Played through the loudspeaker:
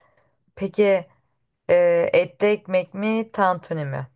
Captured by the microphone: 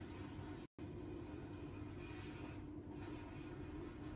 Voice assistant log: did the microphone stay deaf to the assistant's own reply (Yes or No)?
Yes